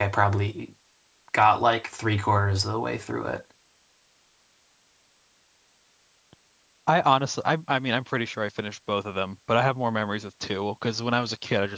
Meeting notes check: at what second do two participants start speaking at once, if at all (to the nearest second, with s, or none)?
none